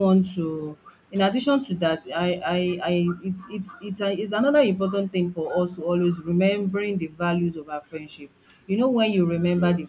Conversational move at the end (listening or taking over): listening